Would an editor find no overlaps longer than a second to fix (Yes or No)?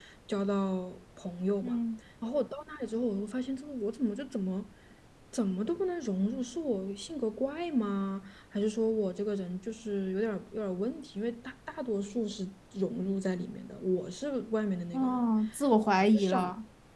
Yes